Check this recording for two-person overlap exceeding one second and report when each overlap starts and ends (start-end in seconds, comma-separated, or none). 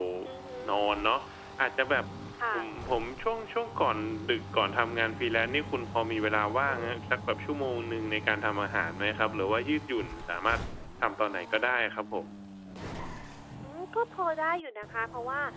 none